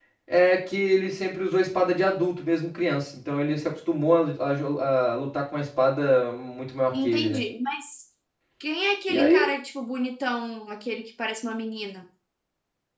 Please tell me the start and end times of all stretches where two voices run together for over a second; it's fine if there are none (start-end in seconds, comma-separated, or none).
none